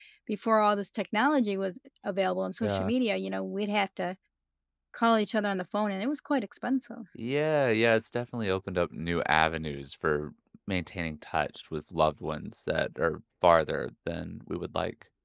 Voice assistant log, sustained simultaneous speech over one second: none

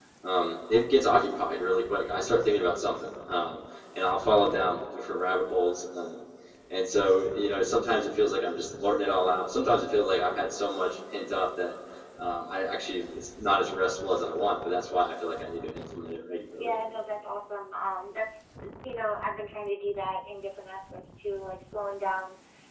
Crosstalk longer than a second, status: none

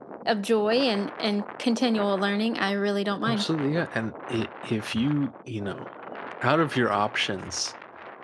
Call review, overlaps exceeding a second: none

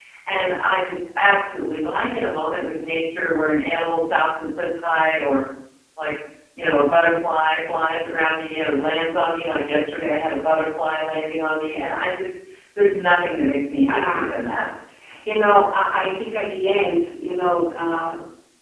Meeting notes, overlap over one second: none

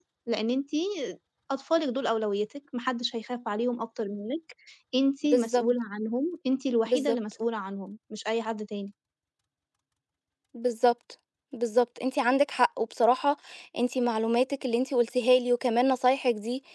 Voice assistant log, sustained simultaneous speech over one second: none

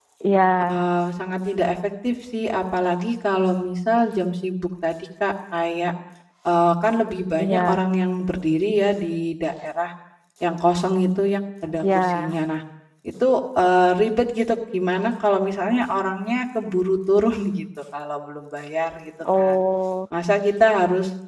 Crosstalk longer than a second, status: none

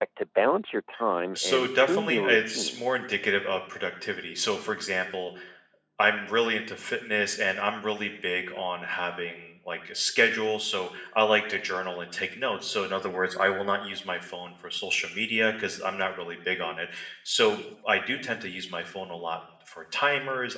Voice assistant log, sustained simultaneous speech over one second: present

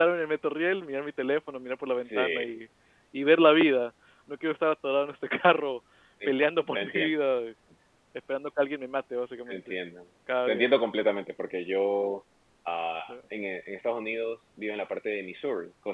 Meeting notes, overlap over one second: none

